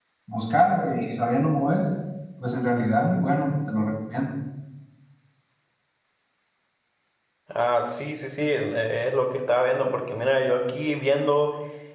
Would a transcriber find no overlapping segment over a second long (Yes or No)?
Yes